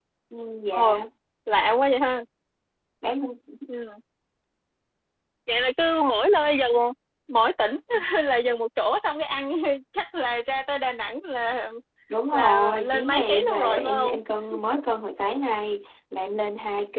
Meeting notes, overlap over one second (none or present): present